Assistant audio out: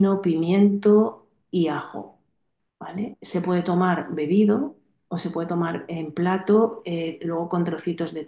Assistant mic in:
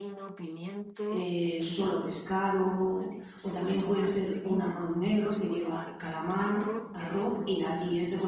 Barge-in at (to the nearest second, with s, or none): 1 s